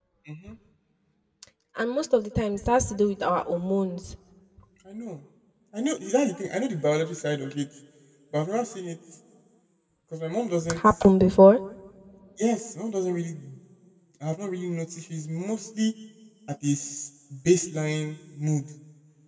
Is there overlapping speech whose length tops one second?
No

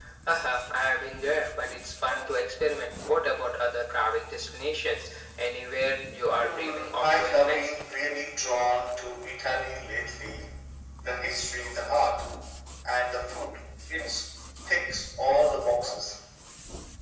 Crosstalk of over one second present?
Yes, from 6.4 s

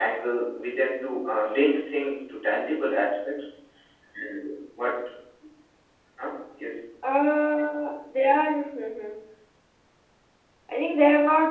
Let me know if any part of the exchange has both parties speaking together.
No

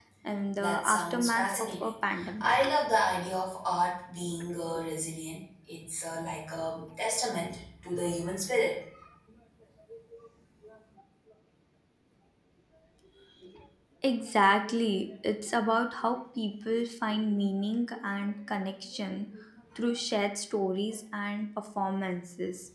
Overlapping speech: Yes, from 0.6 s

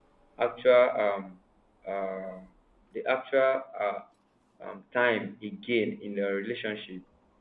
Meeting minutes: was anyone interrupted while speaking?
No

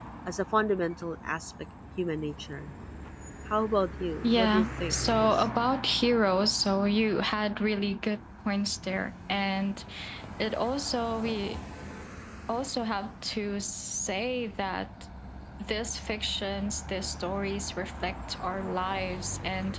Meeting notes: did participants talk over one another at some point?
Yes, from 4.2 s

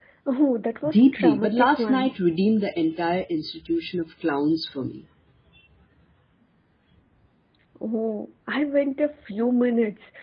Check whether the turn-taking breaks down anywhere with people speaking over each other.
Yes, from 0.8 s

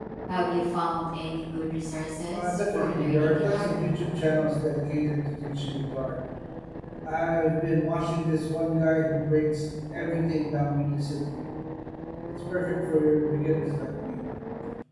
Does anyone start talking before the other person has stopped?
Yes, from 2.3 s

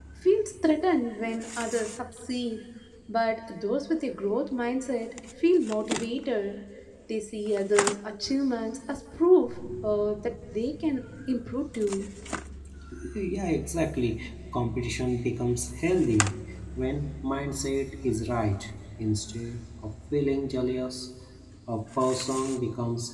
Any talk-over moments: No

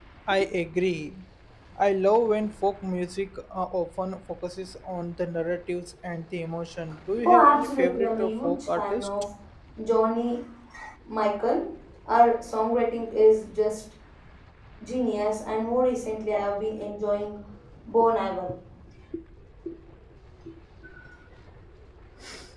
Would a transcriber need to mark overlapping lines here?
Yes, from 7.2 s

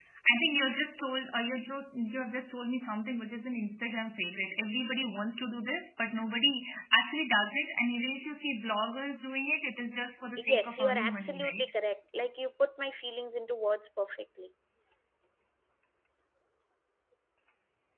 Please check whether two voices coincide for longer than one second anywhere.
Yes, from 10.4 s

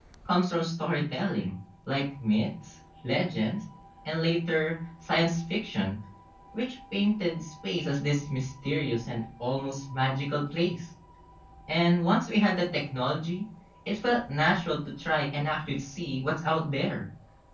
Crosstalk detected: No

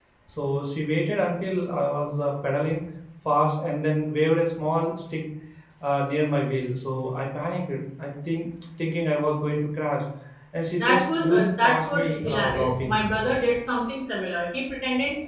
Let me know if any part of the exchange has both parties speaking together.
Yes, from 10.8 s

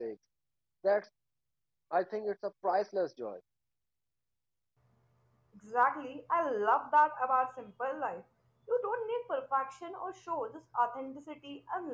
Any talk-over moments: No

